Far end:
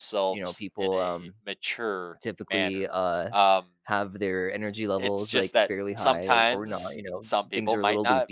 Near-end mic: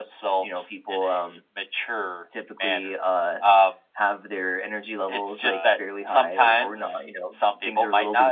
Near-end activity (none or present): present